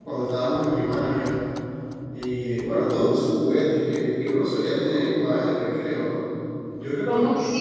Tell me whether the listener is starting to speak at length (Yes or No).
Yes